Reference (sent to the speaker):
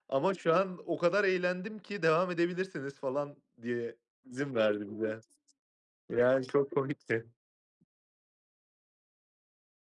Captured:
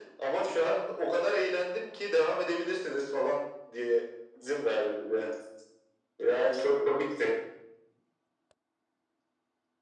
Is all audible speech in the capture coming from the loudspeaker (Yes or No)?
Yes